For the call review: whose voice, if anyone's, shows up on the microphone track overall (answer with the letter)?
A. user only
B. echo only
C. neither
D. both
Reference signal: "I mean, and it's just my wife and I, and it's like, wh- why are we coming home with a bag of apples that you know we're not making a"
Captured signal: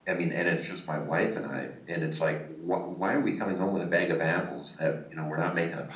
B